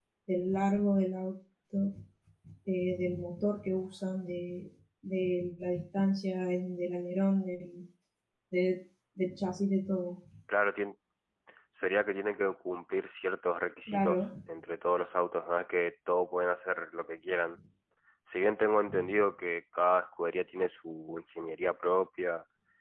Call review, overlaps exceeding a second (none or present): none